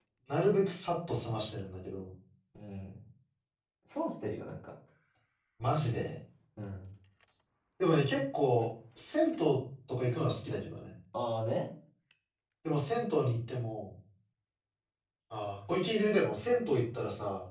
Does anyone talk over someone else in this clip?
No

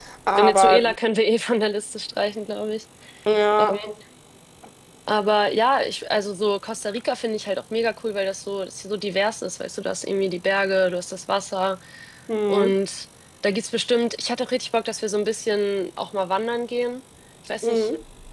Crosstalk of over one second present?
No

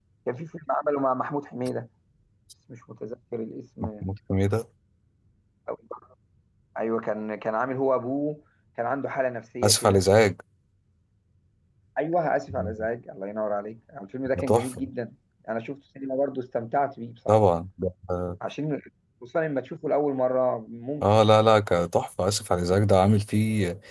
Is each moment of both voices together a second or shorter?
Yes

